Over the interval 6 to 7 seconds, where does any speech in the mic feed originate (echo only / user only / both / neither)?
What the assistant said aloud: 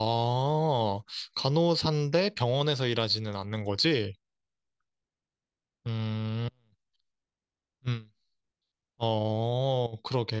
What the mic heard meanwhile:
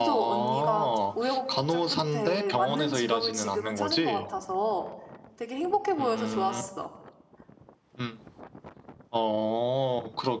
both